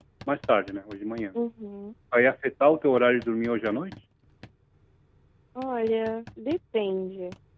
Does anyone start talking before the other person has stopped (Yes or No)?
No